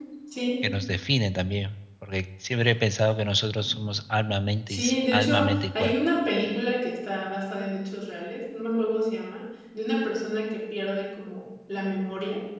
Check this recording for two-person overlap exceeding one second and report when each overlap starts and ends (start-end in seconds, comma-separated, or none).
4.7-6.0